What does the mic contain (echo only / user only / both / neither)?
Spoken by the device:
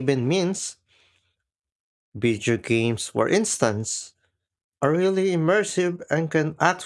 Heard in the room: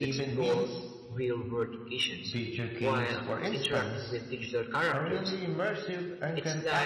both